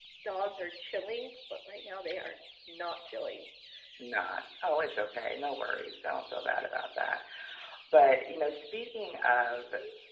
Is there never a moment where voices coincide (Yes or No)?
Yes